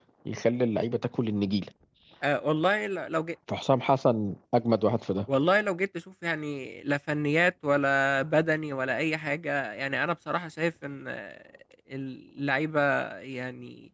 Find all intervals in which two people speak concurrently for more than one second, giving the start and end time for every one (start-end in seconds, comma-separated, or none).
none